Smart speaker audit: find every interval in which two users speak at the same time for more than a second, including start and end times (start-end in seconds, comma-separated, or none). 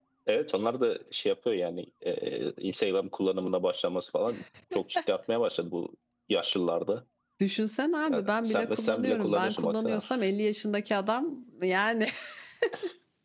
8.1-10.0